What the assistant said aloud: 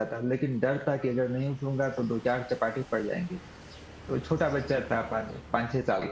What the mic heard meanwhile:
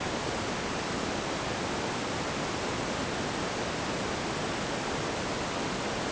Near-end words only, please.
none

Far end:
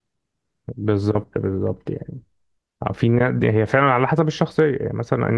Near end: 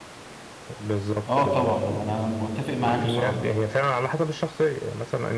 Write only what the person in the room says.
أه طبعا هو أنا متفق معاك بصراحة

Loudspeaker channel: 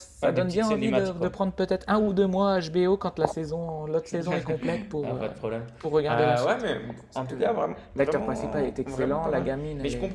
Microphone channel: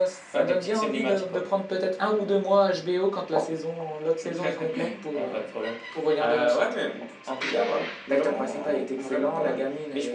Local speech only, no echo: none

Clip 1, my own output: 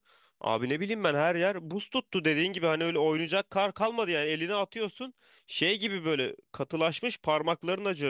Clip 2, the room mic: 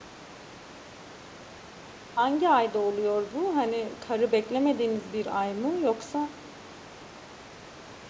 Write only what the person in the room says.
Hangi ayda oluyor bu? Hani karı beklemediğiniz bir ay mı yoksa

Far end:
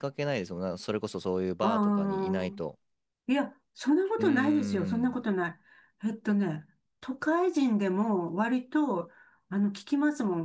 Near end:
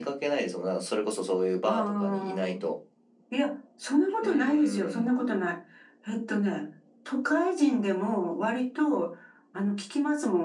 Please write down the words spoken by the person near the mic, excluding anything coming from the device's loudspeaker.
none

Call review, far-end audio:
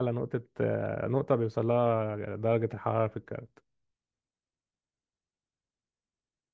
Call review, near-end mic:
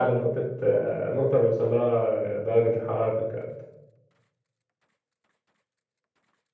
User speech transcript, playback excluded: none

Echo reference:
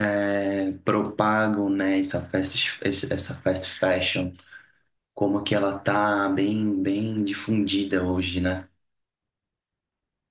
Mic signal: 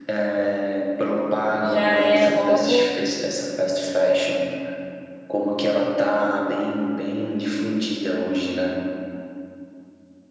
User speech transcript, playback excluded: já é logo.

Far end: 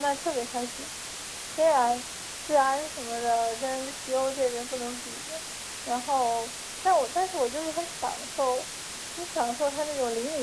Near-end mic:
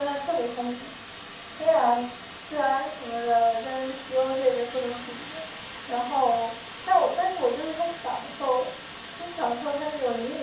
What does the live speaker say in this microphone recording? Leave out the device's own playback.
none

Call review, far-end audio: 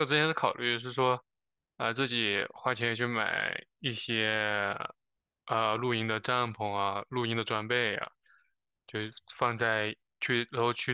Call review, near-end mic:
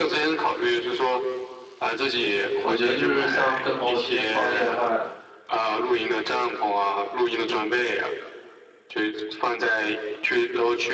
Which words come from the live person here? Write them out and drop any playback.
我觉得就是像跟朋友之间创业的话，

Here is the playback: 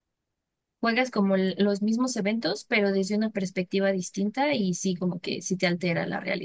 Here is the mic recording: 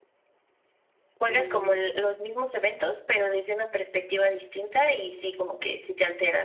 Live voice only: Y

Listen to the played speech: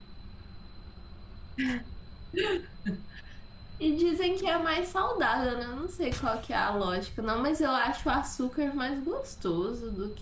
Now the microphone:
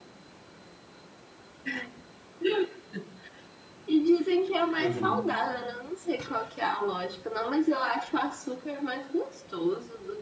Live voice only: Uhum.

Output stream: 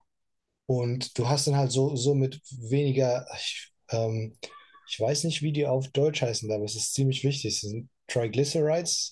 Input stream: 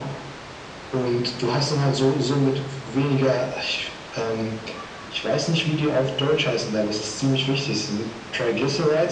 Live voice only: none

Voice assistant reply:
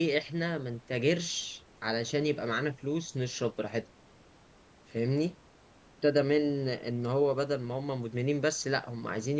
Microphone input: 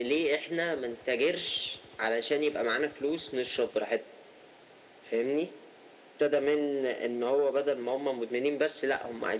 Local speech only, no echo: none

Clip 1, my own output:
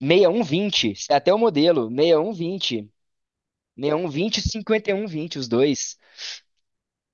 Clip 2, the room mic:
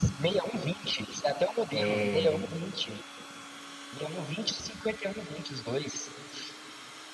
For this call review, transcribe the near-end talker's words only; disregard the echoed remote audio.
é,

